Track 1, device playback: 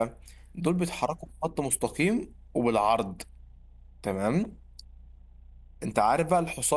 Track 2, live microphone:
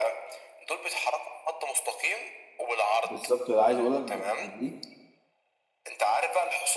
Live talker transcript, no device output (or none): بالظبط اللي عايز أقول لك بتخليك